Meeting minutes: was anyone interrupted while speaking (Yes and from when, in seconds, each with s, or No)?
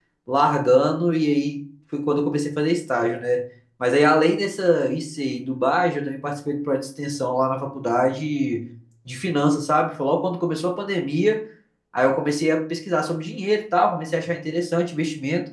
No